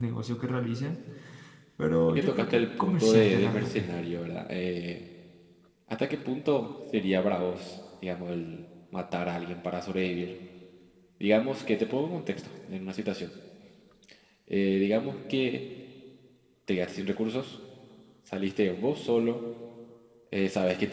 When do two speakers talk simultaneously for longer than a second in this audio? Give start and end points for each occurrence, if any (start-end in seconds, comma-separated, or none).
2.1-3.9